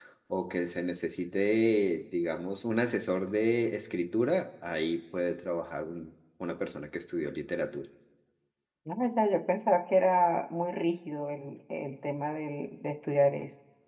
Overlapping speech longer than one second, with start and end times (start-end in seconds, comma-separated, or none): none